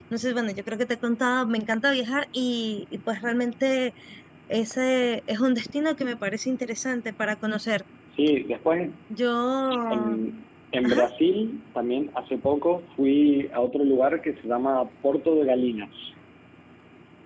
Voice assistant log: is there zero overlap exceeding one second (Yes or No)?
Yes